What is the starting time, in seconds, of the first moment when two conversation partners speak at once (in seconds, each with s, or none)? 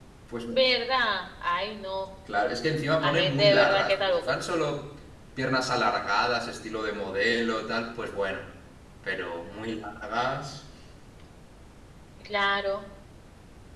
3.0 s